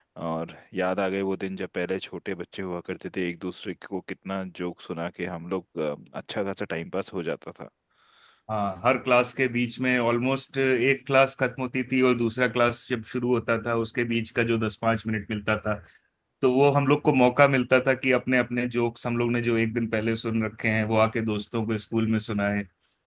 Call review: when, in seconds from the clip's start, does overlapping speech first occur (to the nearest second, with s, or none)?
none